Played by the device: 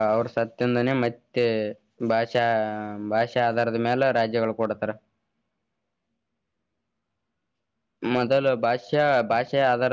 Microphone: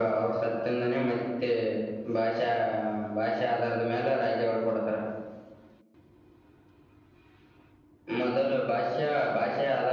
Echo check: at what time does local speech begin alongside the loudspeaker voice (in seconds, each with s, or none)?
none